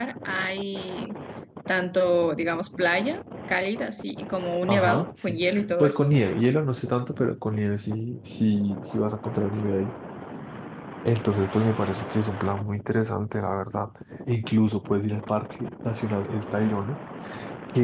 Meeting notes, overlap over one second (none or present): present